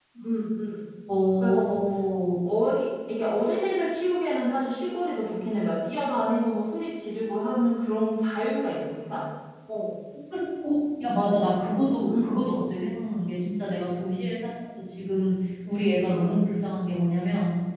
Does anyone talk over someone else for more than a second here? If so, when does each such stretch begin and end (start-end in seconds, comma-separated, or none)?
none